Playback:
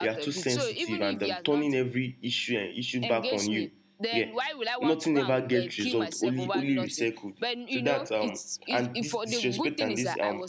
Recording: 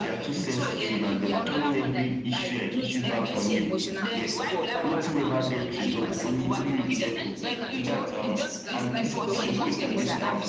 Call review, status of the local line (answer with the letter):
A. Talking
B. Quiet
A